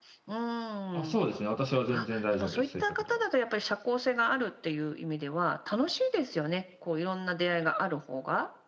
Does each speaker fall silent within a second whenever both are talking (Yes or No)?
No